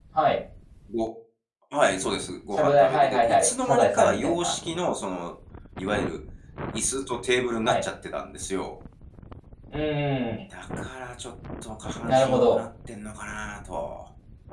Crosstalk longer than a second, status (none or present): present